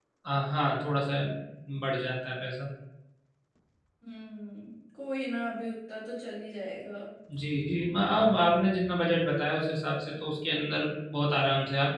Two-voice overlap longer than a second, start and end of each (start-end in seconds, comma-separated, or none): none